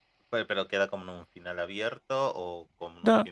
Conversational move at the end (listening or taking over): taking over